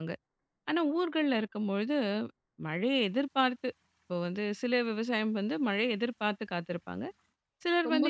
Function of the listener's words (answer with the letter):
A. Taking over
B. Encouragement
A